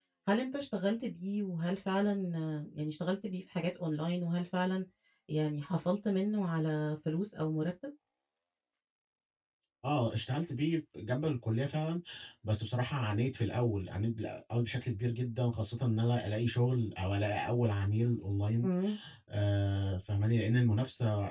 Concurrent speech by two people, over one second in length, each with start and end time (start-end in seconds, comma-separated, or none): none